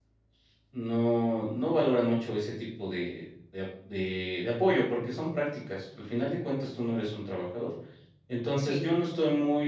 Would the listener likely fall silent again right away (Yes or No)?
Yes